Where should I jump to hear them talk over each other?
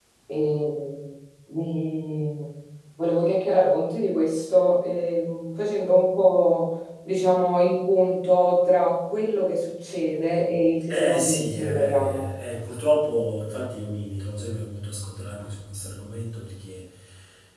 10.9 s

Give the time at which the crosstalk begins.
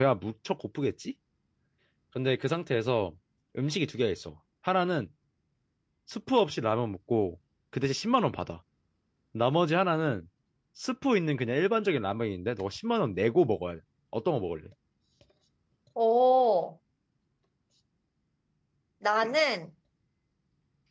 none

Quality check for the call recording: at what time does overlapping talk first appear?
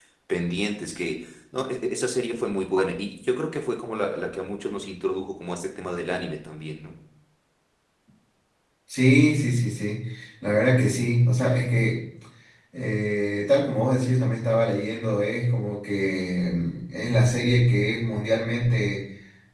none

